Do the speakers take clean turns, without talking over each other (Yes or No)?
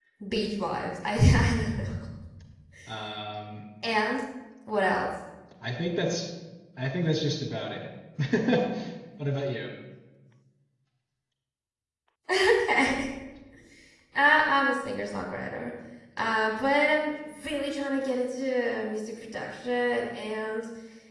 Yes